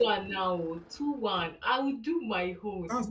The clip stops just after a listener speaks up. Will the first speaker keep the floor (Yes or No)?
No